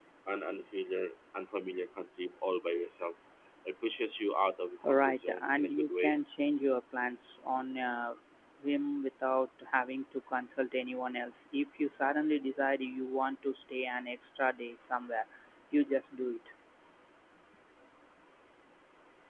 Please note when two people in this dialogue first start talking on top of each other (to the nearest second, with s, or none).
5 s